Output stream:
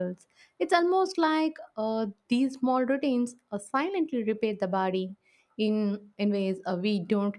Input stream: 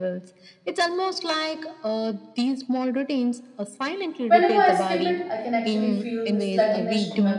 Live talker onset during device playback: 4 s

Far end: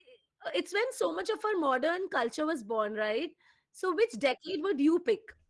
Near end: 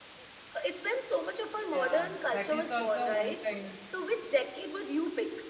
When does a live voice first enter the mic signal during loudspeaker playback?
2 s

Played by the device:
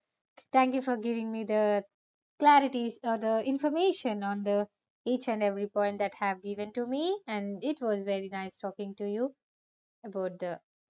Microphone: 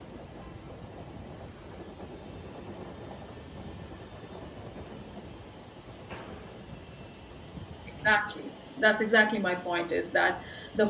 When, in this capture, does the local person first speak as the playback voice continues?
8 s

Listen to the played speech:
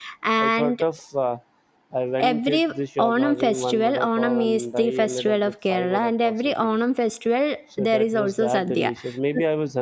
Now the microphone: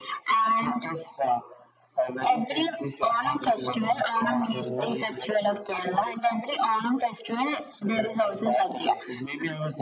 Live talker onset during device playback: 5 s

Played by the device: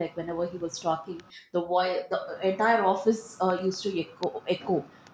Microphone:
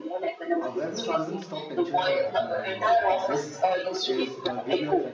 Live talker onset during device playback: 1 s

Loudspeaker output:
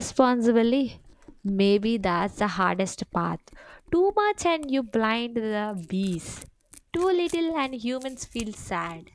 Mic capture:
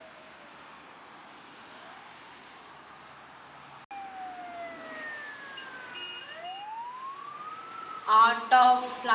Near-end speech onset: 8 s

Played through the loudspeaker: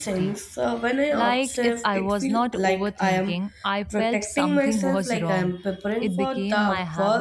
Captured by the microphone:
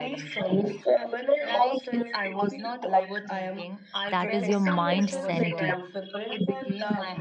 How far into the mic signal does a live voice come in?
4 s

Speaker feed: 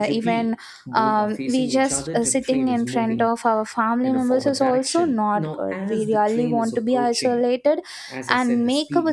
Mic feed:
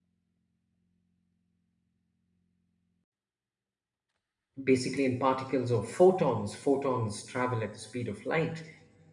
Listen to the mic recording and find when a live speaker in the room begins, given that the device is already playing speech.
5 s

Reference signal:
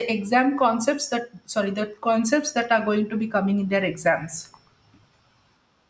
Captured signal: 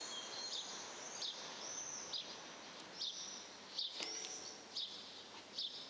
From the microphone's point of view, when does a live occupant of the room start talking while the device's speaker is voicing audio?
none

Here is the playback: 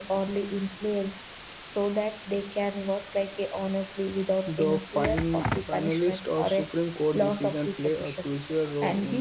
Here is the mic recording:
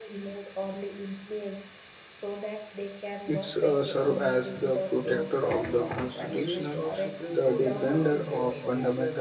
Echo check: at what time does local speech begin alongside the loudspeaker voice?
3 s

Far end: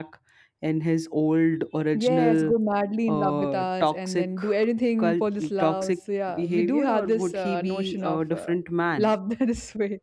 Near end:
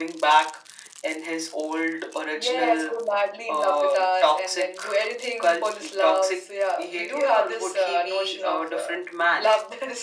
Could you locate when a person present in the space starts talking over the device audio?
none

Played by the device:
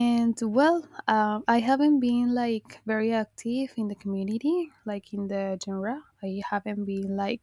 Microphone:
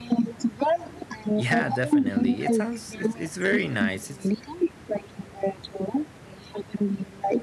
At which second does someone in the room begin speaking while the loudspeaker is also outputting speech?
1 s

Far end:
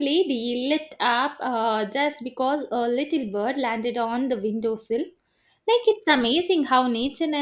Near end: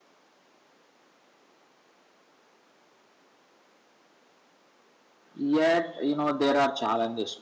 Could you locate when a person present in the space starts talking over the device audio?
5 s

